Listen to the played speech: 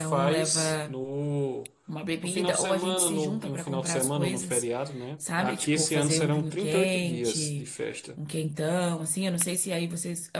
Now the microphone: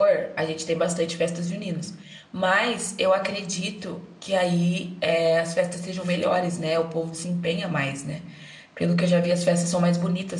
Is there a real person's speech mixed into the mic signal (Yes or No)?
Yes